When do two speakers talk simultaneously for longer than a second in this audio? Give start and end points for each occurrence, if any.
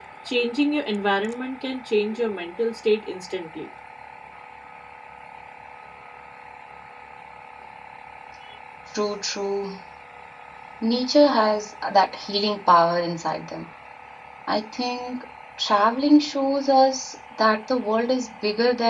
none

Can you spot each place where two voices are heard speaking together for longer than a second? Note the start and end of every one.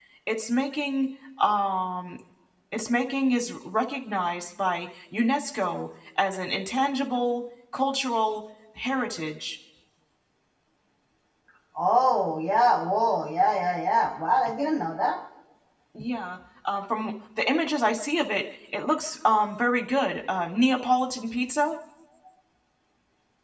none

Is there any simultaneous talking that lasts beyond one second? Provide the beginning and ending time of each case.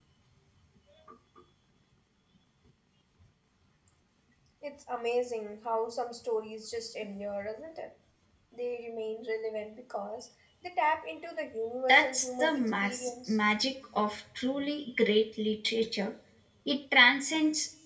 11.9-13.4

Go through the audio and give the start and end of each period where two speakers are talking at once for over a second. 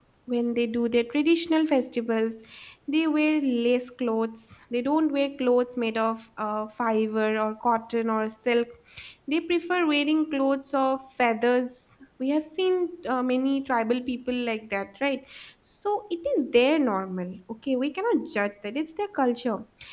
none

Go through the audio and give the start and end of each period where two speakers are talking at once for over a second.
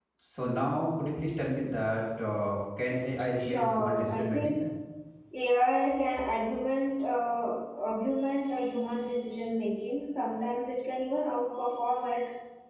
3.4-4.6

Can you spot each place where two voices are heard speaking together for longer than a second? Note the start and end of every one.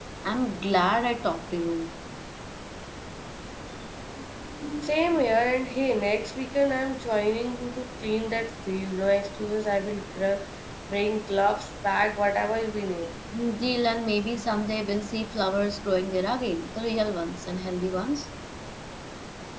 none

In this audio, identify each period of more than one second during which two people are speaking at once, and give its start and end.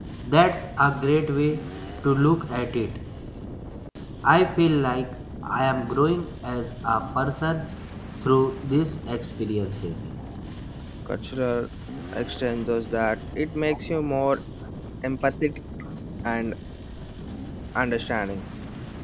none

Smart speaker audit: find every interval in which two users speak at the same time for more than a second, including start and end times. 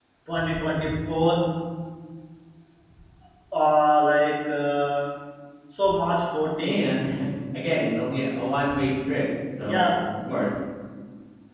none

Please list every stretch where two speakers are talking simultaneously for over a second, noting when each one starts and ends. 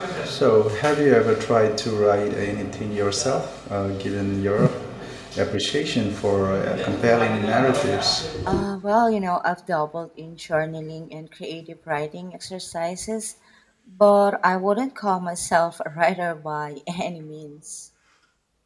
none

